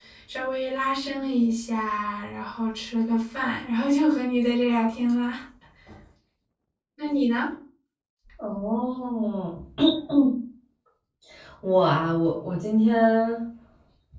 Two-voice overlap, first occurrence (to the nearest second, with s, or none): none